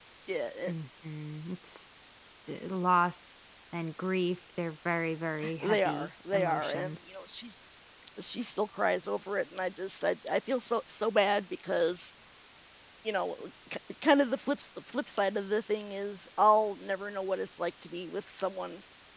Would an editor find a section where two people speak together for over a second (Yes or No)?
Yes